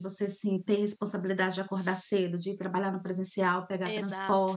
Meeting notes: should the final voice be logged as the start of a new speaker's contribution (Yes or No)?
No